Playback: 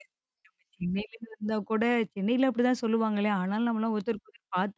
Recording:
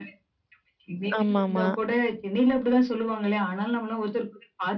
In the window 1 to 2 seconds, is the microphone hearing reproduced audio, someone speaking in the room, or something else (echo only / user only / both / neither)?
both